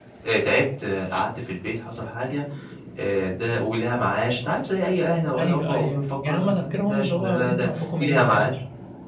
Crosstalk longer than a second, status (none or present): present